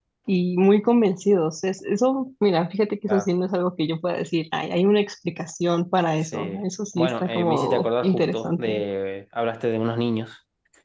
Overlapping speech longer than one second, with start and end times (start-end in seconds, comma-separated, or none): 7.0-8.8